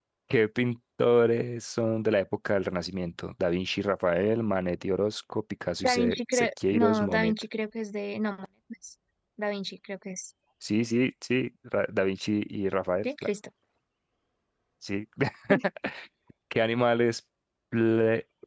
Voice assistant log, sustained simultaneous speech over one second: present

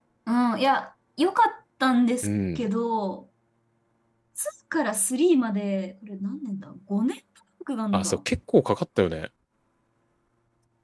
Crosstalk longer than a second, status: none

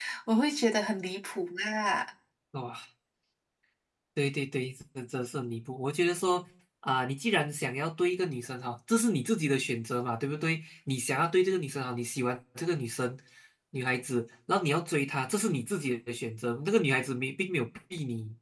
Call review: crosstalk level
none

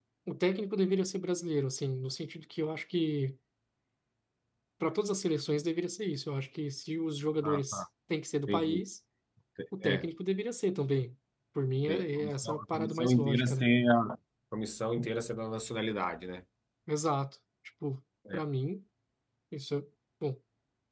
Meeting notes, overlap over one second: present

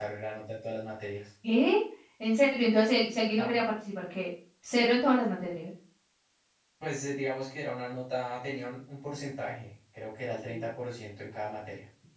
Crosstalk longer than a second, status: none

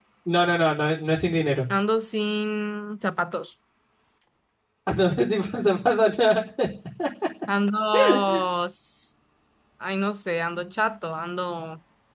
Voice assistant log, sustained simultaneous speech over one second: none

